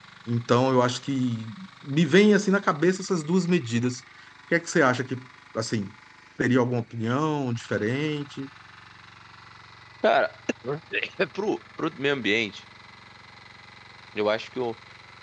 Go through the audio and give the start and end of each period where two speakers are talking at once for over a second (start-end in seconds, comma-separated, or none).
none